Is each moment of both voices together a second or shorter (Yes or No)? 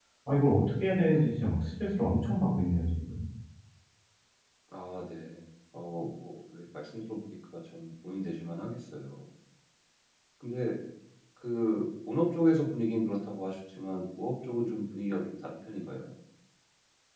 Yes